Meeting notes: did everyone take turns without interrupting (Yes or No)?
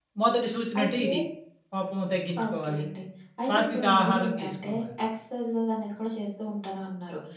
No